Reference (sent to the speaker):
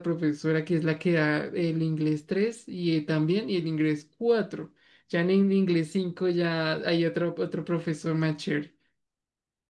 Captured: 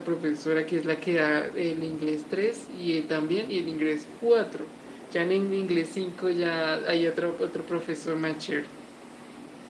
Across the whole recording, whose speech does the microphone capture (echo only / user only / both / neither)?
echo only